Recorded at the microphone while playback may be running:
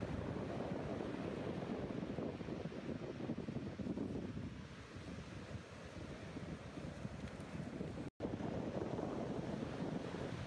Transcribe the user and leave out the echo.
none

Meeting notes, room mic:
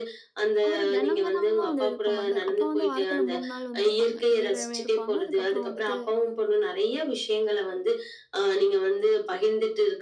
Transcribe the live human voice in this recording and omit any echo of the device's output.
அவரு தெனம் தெனம்லாம் வந்து எழுப்ப மாட்டாரு. அப்பா வந்து வாரத்துல 3 நாள் வந்து இருப்பாங்க. திங்கட்கிழமை இருப்பாங்க. அதுக்கப்புறம் வந்துட்டு

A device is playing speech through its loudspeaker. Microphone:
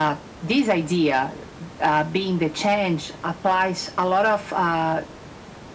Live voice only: none

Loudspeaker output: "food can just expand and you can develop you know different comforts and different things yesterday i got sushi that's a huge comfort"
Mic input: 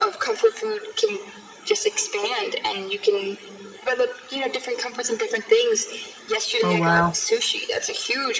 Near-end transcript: Oh, wow.

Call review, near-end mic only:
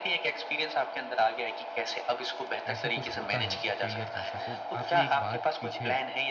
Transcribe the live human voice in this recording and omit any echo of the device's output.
ऐसा कुछ होता है फेलियर जैसा तो आपने एक बात पीछे

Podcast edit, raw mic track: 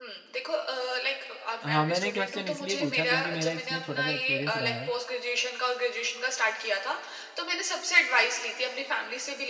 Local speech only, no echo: हाँ, मैंने क्वेश्चन इसलिए पूछा क्योंकि मेरा इसमें छोटा-सा एक्सपीरियंस रहा है।

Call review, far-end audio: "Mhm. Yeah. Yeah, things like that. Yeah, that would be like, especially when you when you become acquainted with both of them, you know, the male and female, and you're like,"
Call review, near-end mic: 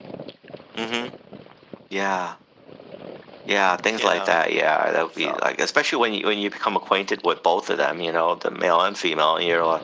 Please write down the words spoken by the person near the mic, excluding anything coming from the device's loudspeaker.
you know, so.

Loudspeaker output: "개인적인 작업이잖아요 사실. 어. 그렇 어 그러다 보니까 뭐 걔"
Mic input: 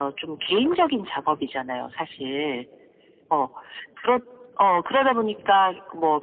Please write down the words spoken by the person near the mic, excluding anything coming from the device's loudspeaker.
none

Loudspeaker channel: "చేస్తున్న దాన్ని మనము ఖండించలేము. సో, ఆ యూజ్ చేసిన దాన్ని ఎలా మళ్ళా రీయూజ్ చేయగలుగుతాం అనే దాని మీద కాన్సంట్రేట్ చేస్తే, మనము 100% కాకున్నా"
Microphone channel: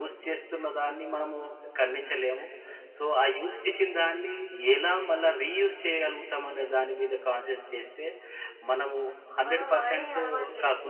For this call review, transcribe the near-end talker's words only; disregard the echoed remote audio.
మనం వాడే అలవాట్లే

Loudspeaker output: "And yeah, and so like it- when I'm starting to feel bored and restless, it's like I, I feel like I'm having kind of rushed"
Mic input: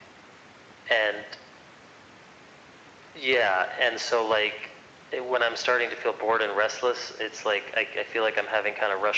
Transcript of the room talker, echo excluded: none

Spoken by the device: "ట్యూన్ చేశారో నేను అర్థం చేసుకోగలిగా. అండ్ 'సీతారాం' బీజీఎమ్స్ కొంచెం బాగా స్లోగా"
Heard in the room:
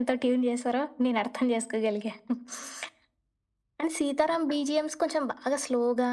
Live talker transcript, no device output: none

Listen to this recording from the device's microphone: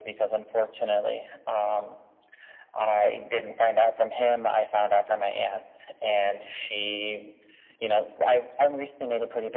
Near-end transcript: none

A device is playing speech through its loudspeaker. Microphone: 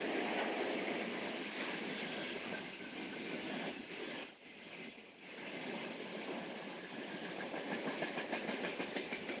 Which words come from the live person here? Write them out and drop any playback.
none

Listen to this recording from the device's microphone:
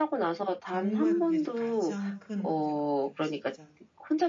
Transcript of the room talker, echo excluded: 정말 그게 가장 큰 문제인 것 같아요 진짜로.

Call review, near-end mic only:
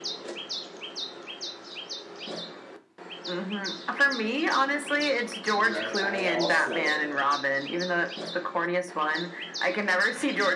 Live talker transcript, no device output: Right. I also

